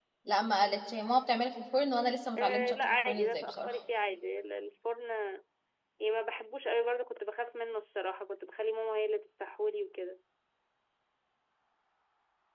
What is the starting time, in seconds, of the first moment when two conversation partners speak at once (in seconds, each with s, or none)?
2.4 s